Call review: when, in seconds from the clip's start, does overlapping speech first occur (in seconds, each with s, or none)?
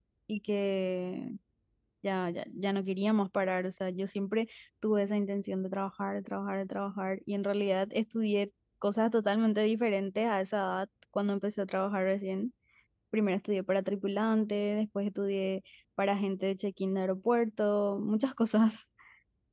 none